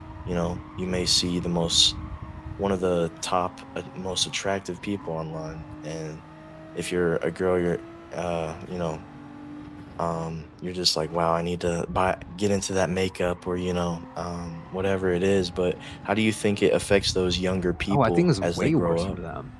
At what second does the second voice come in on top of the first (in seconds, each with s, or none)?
17.9 s